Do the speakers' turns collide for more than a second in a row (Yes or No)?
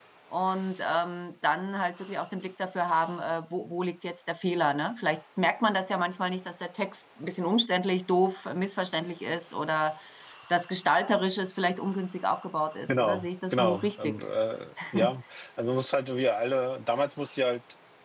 Yes